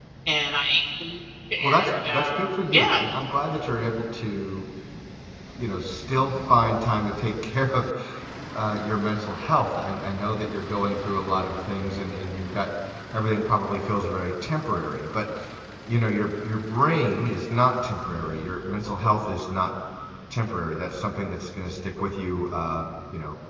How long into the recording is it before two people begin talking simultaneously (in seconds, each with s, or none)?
1.6 s